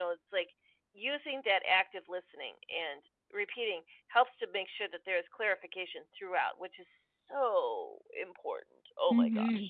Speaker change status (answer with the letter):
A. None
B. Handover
B